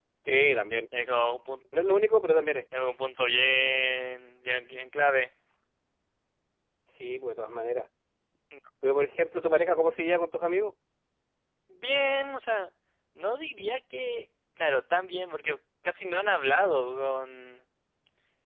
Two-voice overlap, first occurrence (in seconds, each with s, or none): none